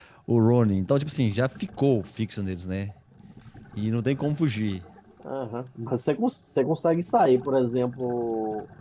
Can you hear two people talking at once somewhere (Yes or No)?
No